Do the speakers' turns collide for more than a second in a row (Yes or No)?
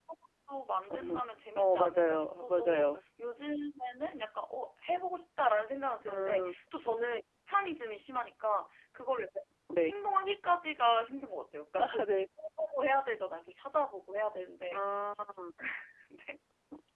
Yes